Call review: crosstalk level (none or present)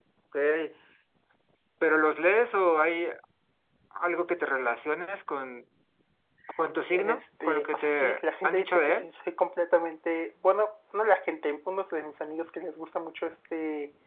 present